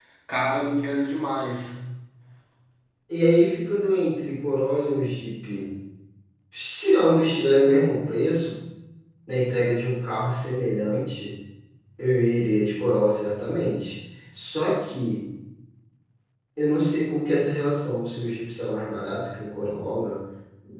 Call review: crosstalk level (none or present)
none